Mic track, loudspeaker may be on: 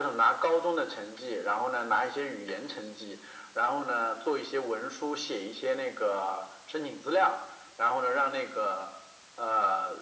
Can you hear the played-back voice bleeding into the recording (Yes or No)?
Yes